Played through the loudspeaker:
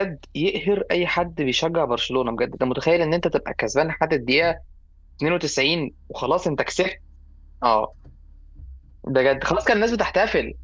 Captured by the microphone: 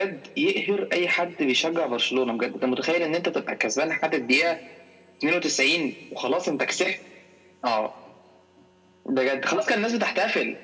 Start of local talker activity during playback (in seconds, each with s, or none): none